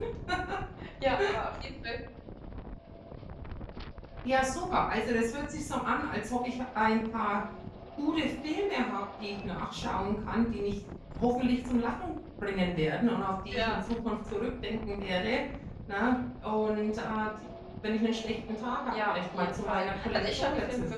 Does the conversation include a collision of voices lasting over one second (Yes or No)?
Yes